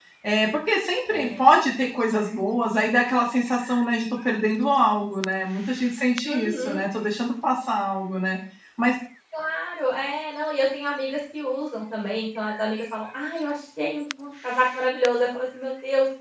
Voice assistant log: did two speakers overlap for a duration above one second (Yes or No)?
No